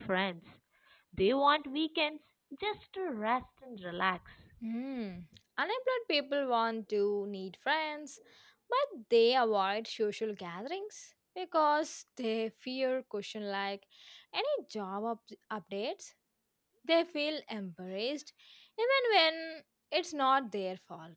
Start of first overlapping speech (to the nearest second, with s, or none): none